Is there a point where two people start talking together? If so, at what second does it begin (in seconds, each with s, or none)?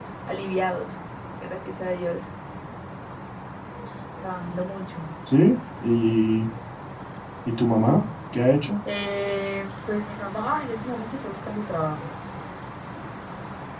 none